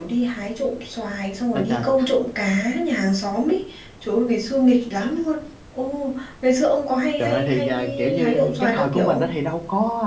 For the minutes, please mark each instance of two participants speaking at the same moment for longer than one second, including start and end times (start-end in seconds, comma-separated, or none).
7.2-9.3